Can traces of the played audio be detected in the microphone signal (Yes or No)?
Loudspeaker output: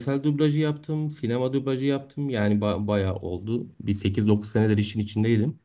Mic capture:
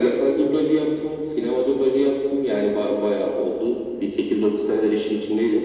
Yes